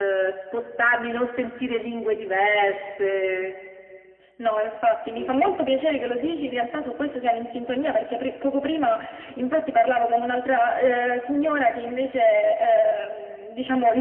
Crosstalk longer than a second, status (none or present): none